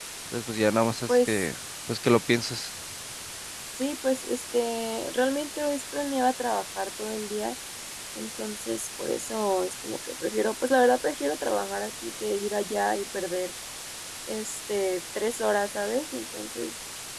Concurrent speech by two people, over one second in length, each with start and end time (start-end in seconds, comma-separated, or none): none